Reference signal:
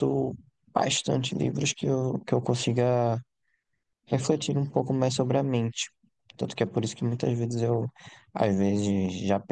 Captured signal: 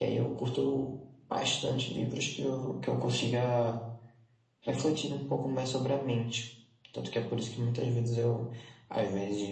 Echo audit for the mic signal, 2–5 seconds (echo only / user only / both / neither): echo only